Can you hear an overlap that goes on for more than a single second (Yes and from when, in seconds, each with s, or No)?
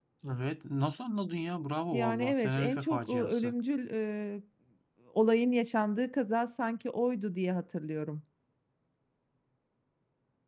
Yes, from 1.9 s